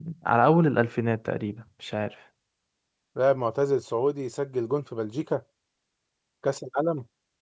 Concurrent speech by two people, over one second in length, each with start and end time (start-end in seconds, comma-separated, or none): none